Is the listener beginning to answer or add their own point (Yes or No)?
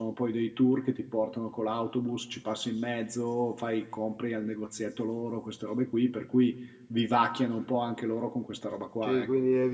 Yes